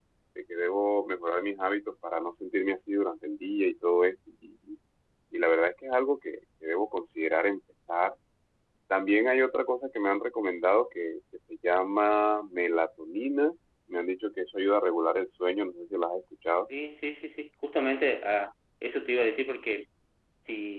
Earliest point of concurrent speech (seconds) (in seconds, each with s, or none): none